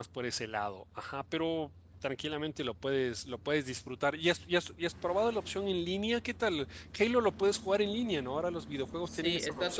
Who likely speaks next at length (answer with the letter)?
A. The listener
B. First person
A